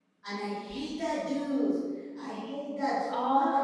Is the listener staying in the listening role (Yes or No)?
No